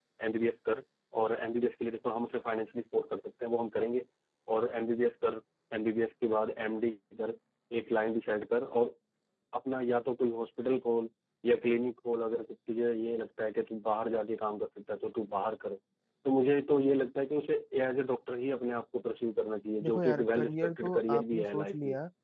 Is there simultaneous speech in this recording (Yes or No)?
Yes